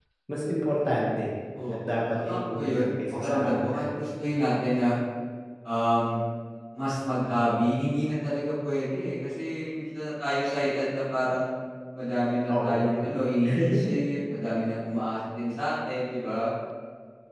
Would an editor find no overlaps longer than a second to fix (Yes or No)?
No